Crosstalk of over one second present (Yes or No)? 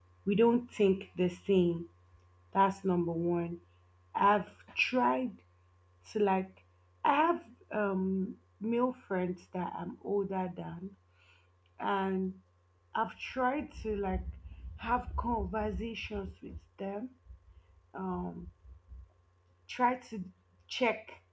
No